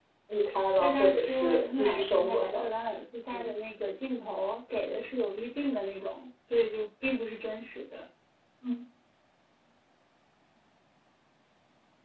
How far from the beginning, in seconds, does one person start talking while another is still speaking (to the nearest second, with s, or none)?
1 s